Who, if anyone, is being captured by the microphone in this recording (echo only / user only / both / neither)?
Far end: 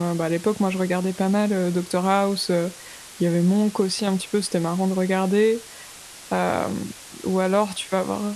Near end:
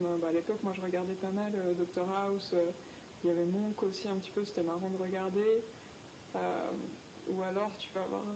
echo only